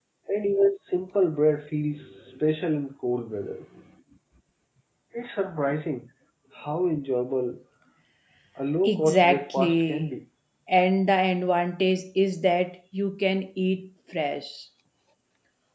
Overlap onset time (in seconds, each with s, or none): 8.9 s